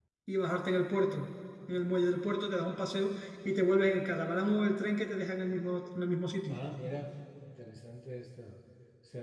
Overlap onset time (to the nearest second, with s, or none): none